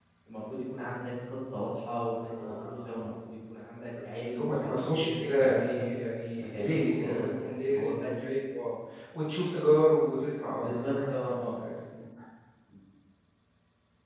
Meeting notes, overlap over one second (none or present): present